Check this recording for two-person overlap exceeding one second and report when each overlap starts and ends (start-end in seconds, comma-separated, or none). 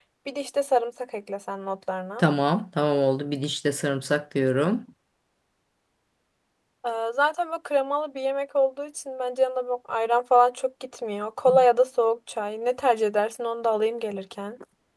none